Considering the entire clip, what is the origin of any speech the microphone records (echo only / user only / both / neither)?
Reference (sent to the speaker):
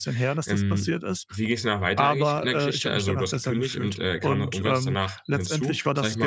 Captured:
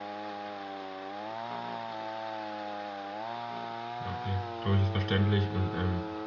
user only